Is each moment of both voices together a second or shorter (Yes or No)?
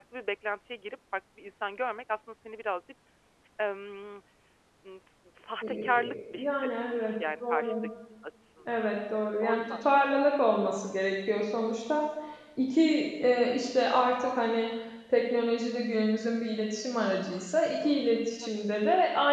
No